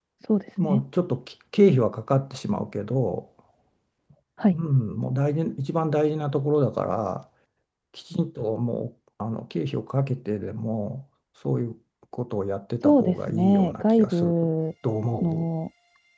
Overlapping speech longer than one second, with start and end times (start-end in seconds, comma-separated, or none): 12.8-14.3